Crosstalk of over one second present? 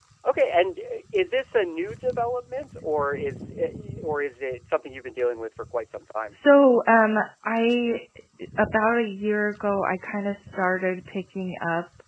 No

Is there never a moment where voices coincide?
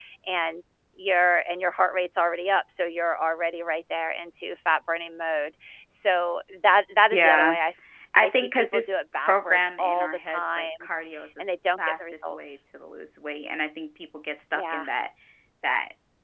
No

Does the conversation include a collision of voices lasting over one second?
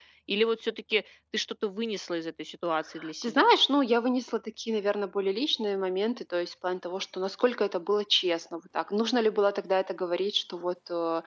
No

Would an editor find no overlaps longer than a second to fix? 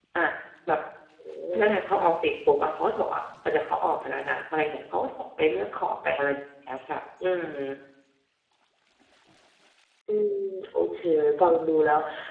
Yes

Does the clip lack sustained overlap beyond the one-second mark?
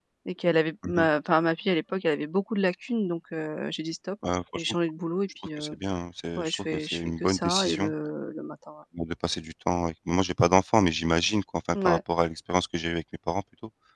No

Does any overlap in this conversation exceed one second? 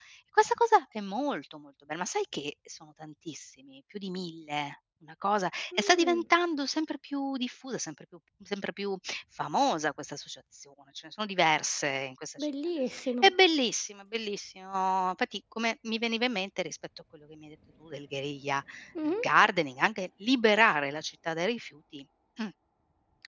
No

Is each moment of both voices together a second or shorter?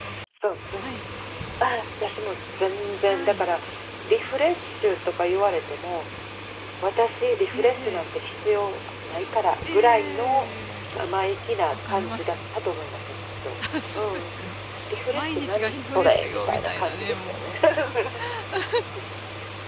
No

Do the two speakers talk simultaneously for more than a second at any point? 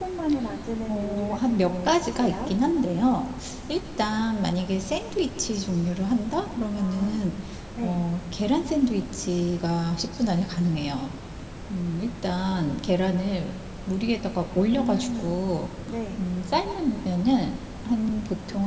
Yes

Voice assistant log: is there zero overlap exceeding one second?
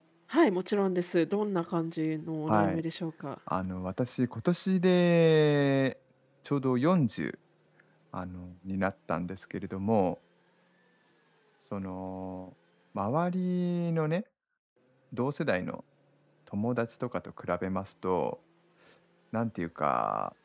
Yes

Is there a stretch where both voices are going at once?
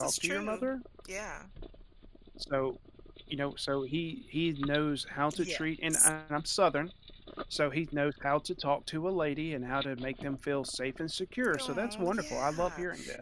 Yes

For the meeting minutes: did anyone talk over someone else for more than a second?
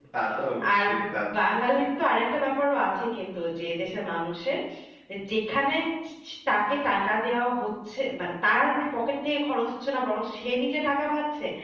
No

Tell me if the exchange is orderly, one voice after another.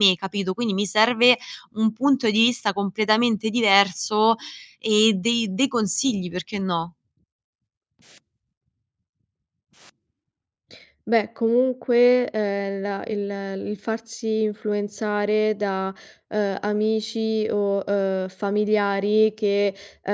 Yes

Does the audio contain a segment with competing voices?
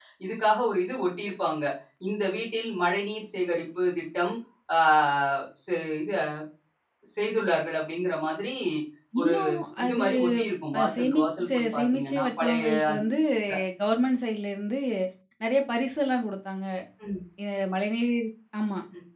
Yes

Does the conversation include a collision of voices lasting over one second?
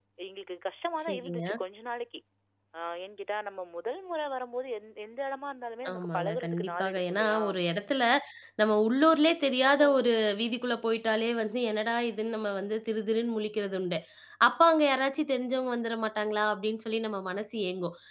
Yes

